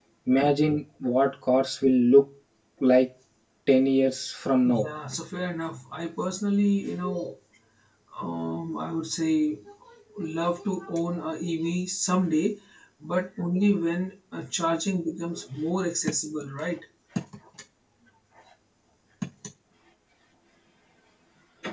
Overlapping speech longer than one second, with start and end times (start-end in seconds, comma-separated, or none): none